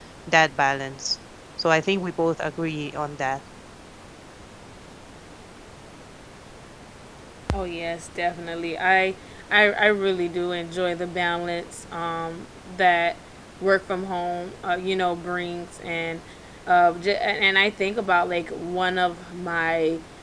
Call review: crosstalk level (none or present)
none